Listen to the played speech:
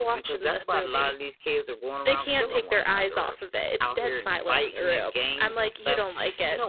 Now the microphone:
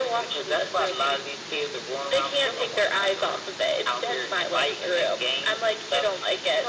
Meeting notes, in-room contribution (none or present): none